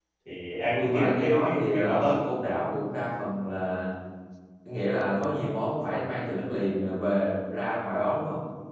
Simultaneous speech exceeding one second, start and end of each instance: 0.8-2.5

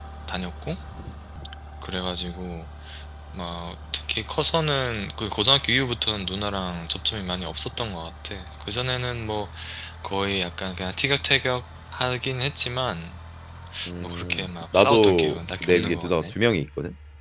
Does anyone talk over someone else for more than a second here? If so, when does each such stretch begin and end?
14.0-16.3

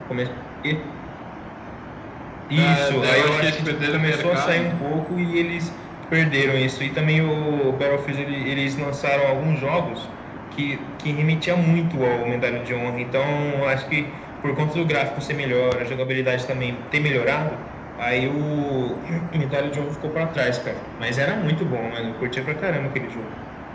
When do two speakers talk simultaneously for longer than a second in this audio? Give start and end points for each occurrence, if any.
2.5-4.7

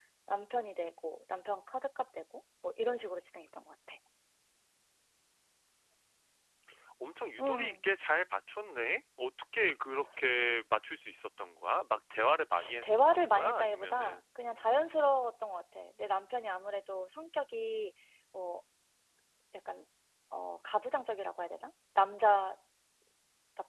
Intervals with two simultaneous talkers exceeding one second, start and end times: 12.8-14.2

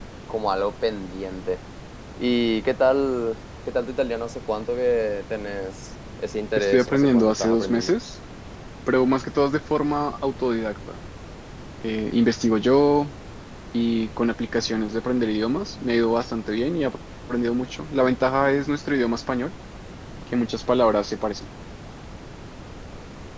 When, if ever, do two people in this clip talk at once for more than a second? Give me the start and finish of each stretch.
6.6-7.9

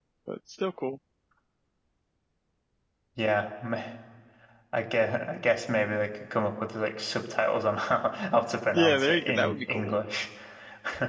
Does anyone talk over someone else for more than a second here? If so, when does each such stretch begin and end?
8.8-10.0

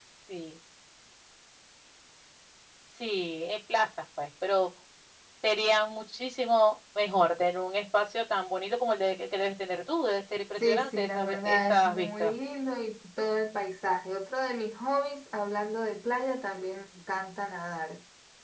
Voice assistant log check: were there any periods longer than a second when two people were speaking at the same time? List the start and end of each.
10.6-12.3

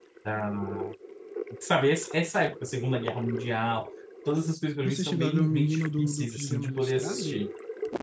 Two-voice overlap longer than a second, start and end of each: 4.8-7.4

